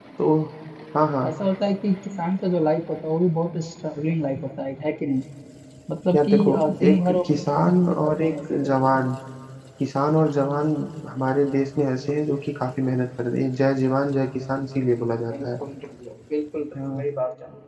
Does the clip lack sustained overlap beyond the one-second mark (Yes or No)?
No